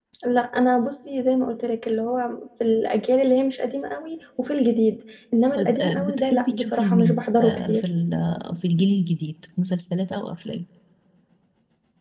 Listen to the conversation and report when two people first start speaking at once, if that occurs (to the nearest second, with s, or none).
6 s